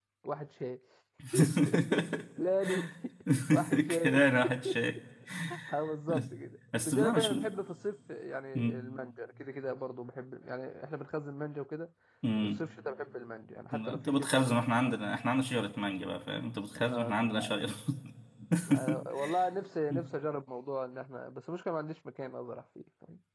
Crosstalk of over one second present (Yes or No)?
Yes